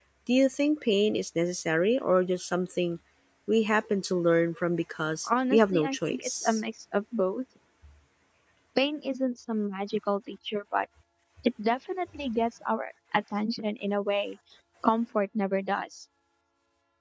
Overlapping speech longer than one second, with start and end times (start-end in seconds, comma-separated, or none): 5.2-6.6